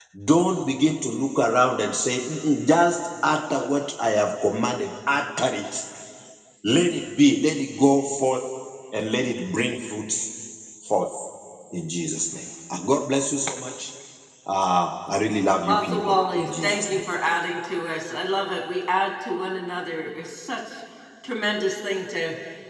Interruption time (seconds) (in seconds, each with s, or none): 15.7 s